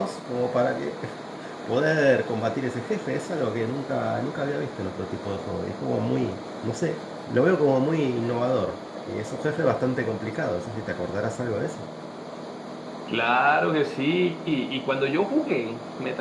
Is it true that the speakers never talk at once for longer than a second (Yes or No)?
Yes